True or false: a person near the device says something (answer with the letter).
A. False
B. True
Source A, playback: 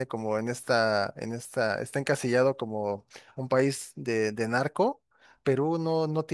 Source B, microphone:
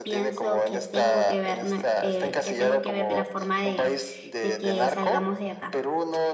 B